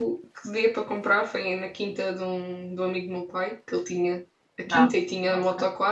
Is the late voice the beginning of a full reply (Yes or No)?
No